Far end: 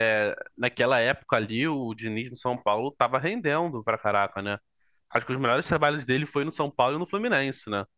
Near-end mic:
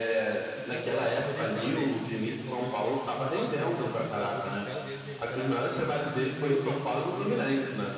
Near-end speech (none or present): present